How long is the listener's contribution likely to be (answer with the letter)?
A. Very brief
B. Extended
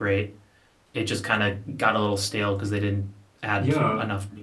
B